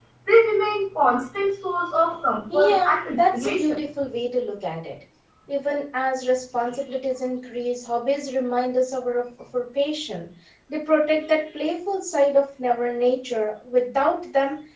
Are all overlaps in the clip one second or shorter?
No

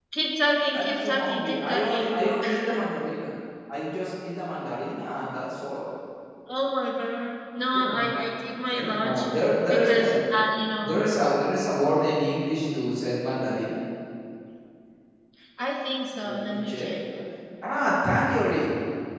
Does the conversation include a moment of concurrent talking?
Yes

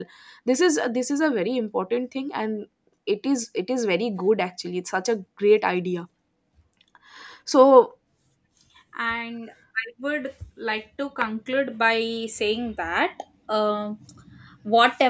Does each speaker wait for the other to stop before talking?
Yes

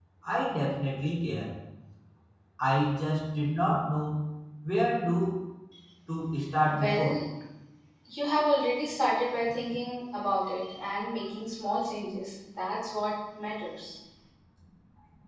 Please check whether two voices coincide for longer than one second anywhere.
No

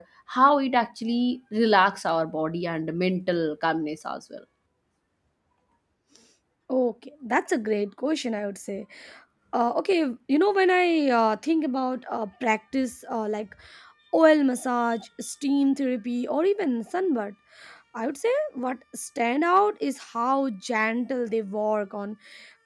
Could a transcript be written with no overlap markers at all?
Yes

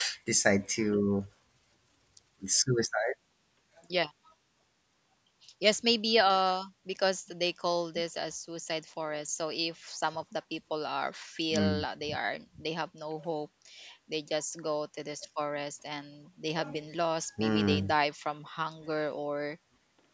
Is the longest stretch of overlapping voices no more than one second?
Yes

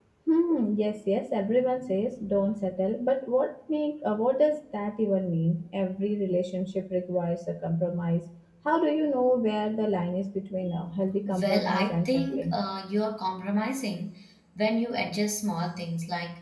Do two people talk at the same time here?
Yes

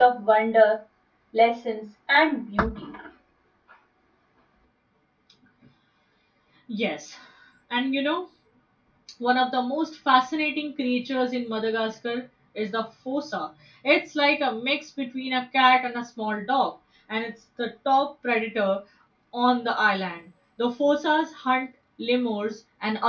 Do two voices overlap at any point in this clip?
No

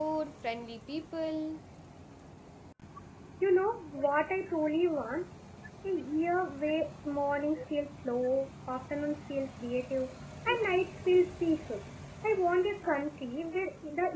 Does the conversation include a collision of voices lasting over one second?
No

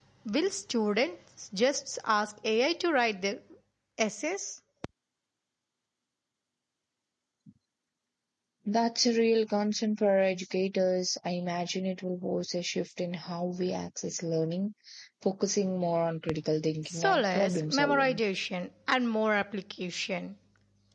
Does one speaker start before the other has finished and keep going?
Yes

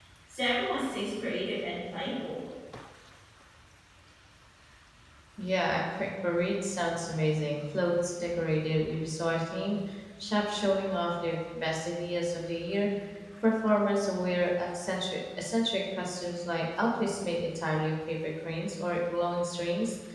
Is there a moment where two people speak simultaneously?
No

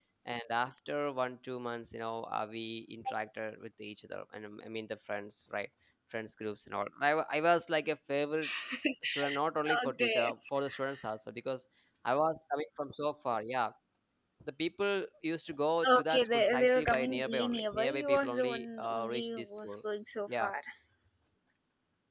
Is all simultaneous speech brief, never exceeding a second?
No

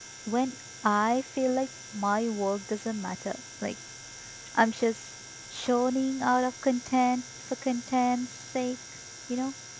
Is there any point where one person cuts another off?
No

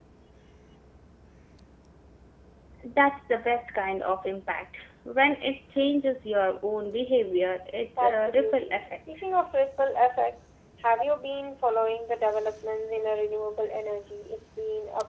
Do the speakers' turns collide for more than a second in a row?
Yes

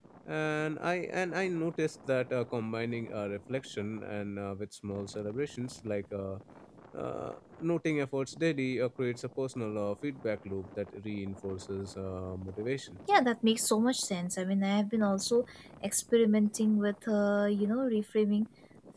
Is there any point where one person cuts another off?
No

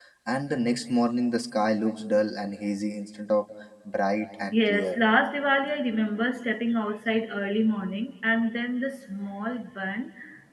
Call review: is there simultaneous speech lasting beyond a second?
No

